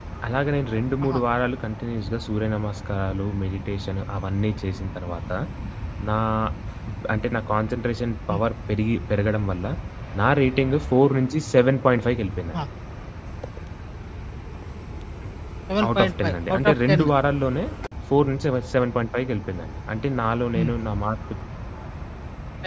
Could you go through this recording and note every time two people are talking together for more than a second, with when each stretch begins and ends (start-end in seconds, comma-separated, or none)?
15.9-17.1